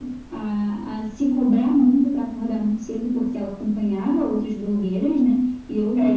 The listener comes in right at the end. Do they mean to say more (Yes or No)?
Yes